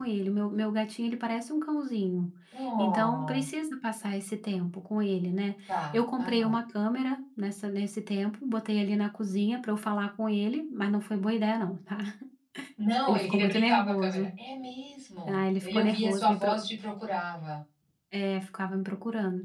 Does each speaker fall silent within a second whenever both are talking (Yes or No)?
No